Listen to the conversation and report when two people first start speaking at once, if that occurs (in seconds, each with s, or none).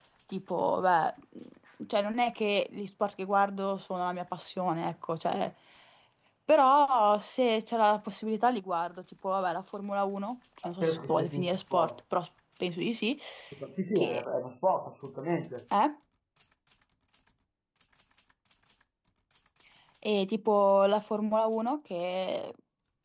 10.6 s